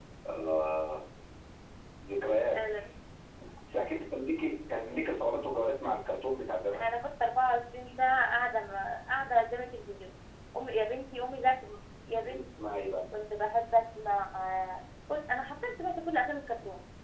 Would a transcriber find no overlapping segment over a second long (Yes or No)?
Yes